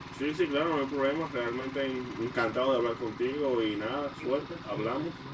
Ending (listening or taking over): taking over